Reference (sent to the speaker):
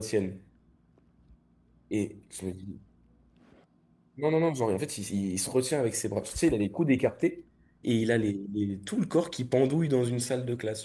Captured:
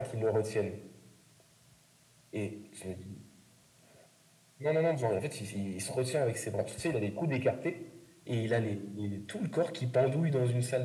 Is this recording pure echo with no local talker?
Yes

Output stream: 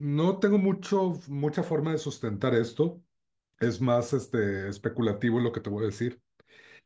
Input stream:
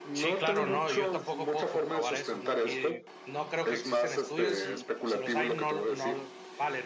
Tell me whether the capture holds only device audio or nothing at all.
No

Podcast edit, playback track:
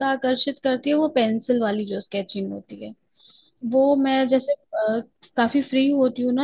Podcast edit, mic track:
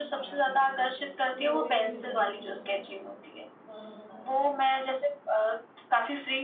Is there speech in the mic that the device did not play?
Yes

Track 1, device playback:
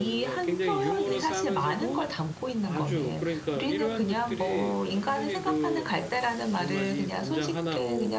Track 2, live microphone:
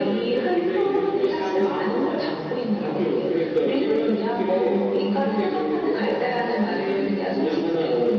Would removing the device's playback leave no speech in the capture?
Yes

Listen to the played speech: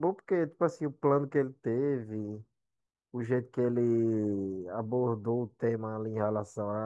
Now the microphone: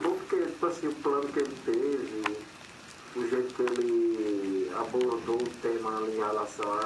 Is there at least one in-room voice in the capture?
No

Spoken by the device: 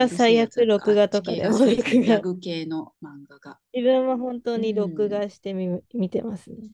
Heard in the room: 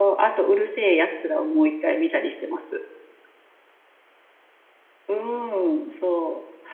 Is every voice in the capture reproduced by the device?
No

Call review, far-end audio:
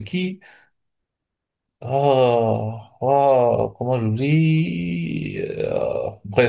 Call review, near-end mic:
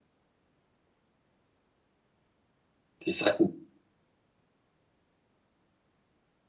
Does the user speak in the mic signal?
Yes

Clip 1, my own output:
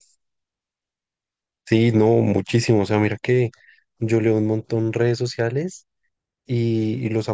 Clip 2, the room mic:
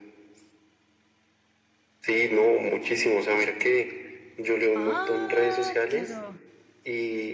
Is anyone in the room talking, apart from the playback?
Yes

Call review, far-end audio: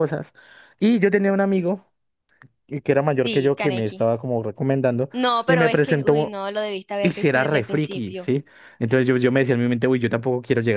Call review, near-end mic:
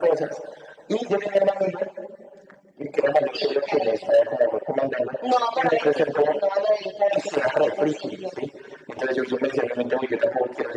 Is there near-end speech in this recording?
No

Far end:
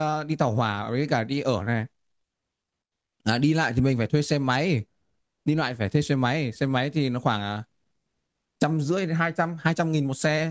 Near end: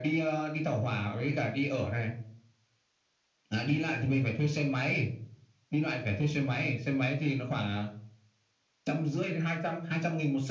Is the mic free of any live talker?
Yes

